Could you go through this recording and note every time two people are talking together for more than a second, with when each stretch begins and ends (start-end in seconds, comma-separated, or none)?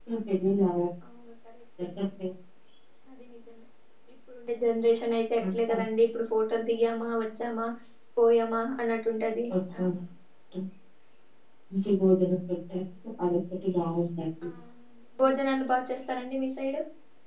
none